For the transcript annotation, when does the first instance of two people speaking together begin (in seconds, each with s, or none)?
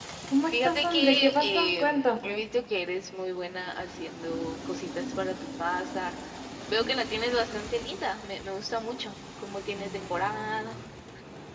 0.5 s